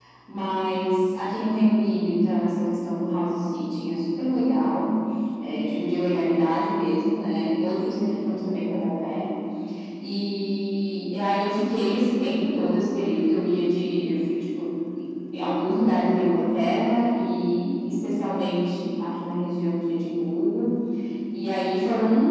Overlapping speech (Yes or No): No